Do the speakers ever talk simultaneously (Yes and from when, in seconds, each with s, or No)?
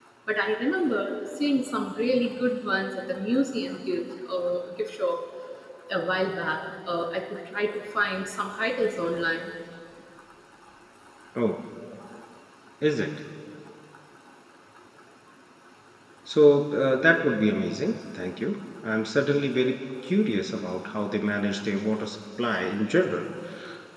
No